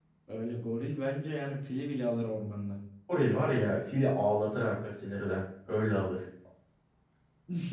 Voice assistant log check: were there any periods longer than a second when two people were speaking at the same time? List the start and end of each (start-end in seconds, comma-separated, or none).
none